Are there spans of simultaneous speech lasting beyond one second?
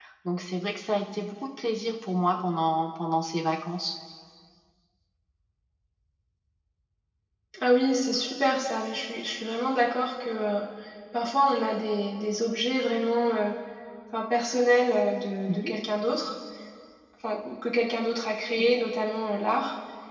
No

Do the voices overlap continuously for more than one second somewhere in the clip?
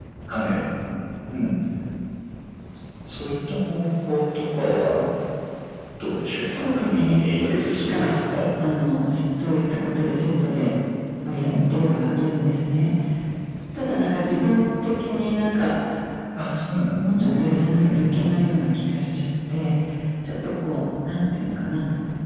Yes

